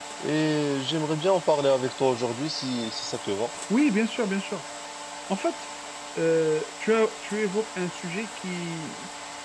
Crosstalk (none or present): none